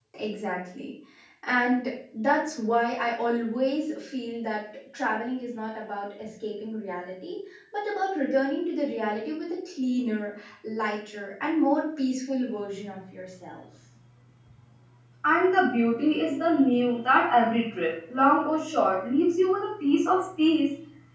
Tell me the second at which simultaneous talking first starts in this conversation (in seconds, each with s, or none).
none